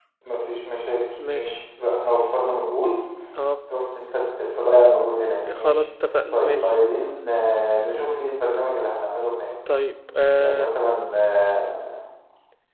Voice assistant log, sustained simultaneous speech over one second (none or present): none